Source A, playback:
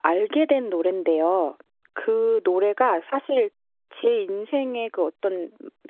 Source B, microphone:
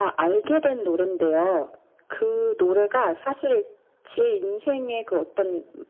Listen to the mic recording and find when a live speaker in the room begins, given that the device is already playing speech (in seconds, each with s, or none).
none